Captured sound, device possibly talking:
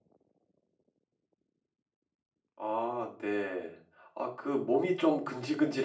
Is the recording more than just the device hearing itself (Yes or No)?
Yes